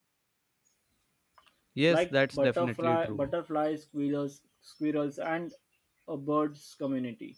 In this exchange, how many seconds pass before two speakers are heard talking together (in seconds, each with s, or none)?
1.9 s